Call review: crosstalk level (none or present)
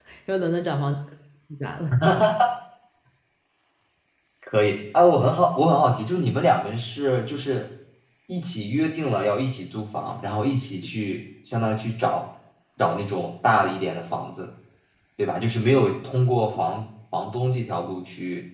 none